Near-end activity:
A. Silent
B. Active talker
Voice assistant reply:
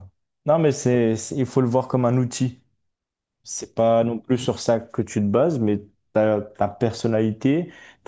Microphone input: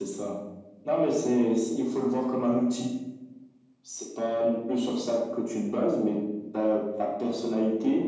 A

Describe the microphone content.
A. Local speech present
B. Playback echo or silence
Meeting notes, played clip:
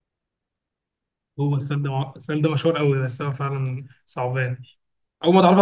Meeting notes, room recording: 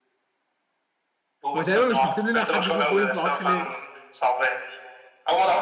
A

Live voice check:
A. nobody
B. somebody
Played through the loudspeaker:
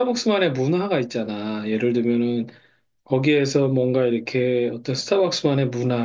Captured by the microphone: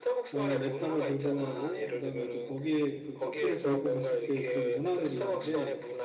B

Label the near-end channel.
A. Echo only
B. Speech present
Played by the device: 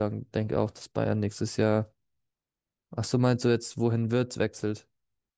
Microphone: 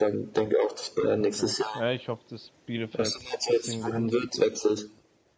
B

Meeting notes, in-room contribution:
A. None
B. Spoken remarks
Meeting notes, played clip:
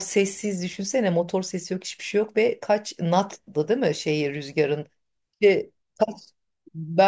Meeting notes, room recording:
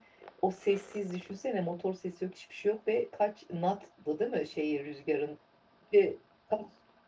A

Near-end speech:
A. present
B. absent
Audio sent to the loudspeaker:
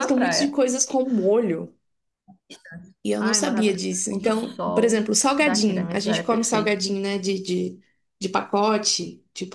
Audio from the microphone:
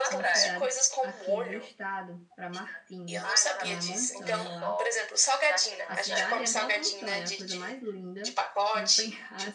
A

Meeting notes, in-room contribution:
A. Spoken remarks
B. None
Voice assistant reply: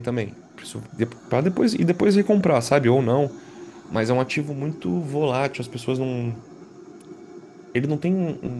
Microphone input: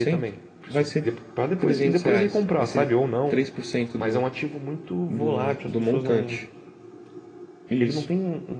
A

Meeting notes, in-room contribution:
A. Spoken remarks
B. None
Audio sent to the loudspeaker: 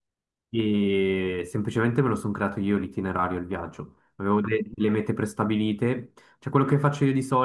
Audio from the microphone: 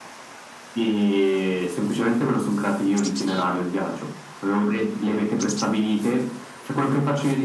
B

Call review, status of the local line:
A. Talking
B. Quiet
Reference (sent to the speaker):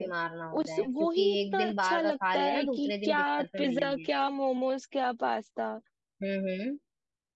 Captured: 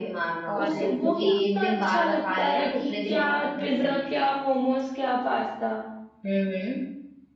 A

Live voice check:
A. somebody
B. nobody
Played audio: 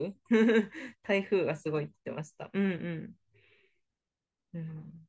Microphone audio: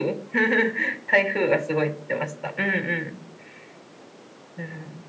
B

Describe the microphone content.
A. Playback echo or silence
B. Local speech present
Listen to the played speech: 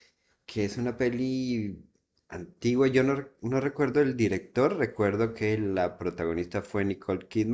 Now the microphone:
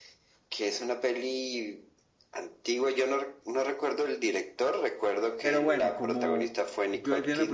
B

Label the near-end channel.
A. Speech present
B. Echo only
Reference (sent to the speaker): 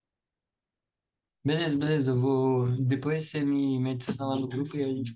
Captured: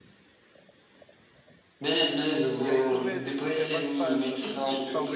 A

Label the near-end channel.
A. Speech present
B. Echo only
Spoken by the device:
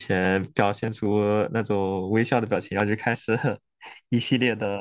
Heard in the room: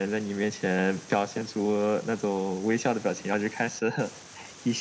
B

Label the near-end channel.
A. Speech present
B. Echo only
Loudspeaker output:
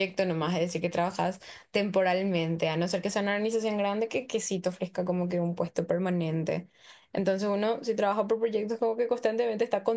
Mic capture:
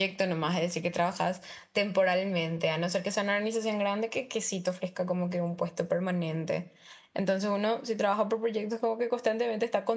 B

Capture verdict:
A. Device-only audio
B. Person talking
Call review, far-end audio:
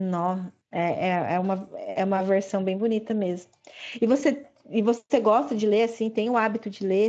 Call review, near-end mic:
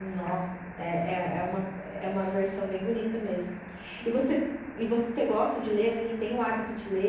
A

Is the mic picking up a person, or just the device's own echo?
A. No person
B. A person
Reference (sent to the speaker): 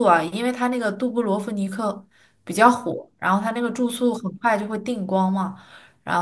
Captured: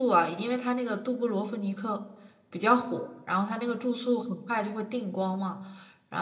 A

